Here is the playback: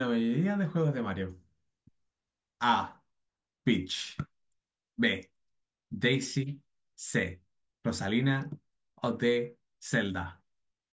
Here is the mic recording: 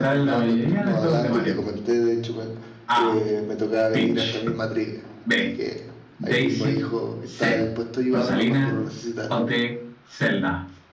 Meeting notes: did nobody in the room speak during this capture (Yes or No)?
No